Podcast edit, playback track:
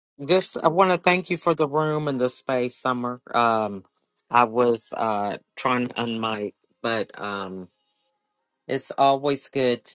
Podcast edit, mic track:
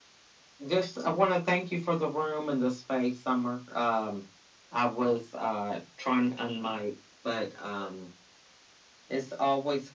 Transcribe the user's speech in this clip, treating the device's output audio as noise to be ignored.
none

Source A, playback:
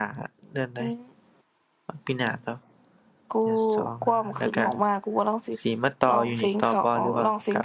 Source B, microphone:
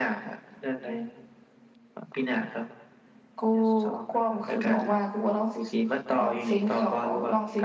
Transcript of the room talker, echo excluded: none

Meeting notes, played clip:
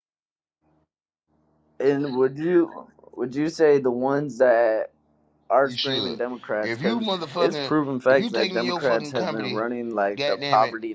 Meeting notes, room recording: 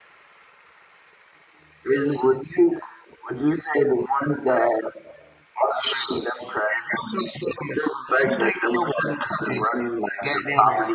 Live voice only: none

